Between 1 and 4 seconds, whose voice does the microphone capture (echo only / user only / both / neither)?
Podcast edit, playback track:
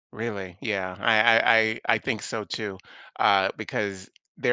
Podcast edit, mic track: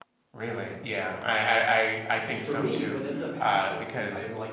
both